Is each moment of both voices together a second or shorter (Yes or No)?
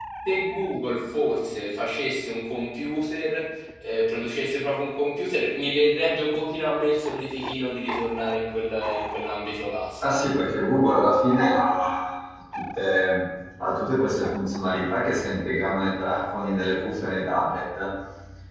Yes